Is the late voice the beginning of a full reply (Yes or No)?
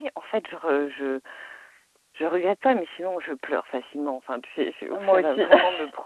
No